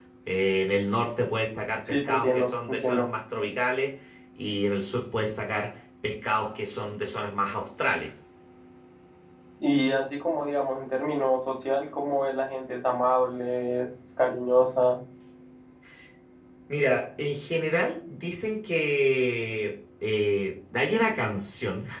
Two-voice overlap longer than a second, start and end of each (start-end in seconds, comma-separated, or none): 1.8-3.1